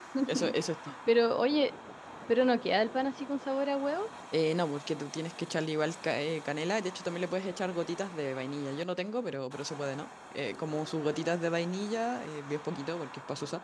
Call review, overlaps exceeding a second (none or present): none